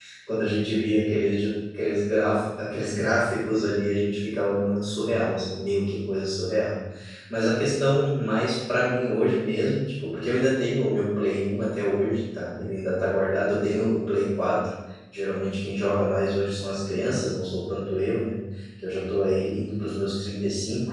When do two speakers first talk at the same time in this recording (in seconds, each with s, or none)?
none